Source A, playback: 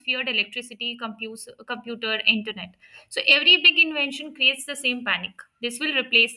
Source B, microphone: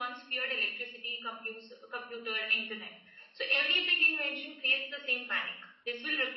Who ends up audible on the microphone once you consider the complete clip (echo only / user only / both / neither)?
echo only